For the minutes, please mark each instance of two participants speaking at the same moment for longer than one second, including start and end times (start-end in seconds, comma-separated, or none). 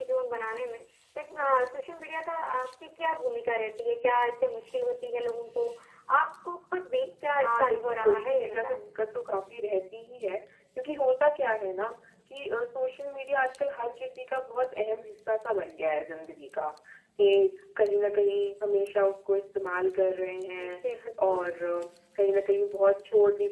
7.4-8.8